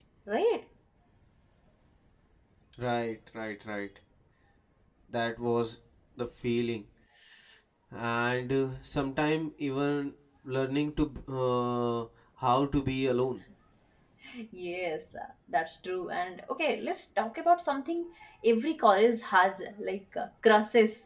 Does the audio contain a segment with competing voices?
No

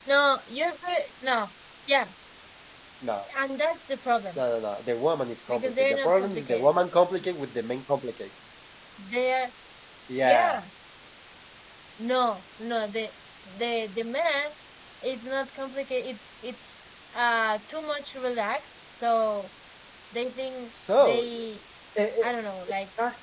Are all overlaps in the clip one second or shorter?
No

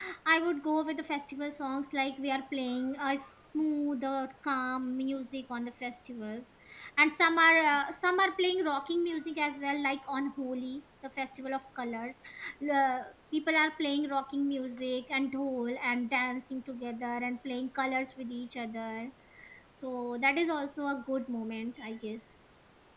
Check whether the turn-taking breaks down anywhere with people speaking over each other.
No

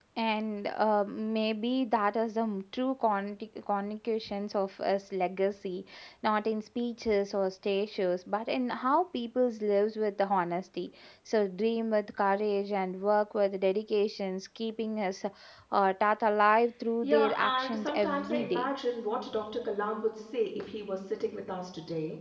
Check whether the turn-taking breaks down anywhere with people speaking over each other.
Yes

